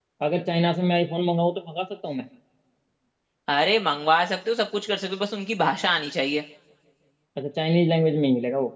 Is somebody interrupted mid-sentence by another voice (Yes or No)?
No